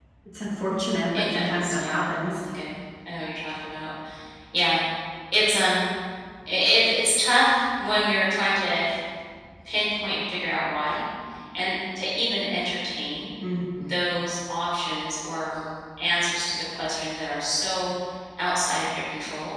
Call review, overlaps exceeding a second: present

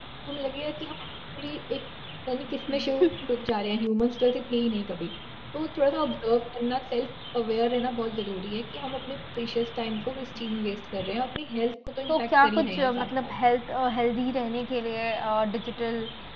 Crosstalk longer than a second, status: present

